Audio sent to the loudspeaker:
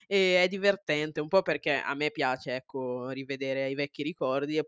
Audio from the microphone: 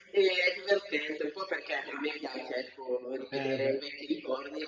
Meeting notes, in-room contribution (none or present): present